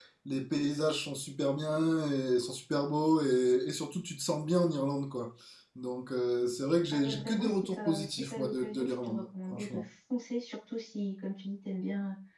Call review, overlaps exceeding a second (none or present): present